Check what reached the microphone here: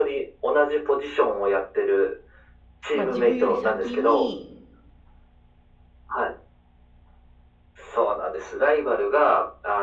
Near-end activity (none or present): present